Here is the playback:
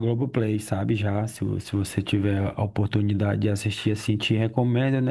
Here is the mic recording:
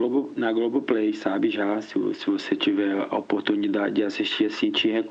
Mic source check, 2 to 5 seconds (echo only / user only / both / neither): echo only